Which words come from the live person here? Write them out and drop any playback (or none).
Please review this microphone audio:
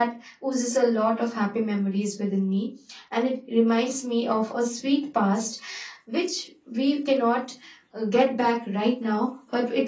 none